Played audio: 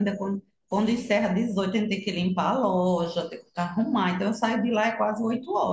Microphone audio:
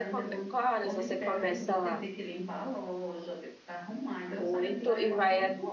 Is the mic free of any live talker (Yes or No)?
No